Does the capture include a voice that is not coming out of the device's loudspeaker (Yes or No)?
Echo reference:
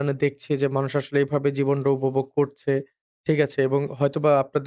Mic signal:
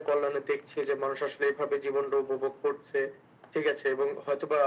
No